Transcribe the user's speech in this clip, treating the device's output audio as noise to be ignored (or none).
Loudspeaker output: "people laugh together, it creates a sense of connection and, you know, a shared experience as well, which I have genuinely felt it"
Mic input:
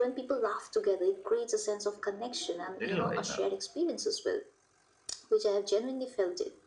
little while. Uh,